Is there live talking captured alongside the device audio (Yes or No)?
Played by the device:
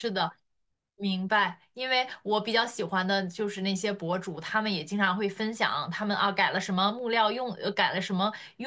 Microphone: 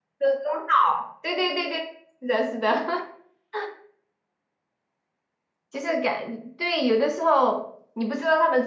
Yes